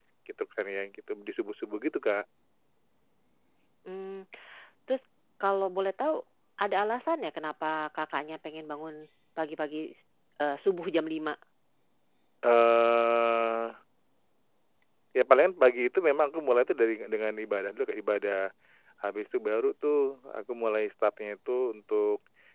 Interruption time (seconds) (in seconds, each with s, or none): none